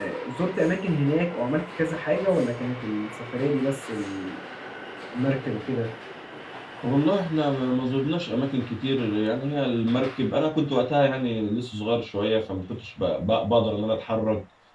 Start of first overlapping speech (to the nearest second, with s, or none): none